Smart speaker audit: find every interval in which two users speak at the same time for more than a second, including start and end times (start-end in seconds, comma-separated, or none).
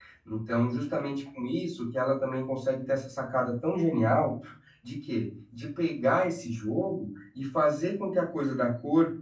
none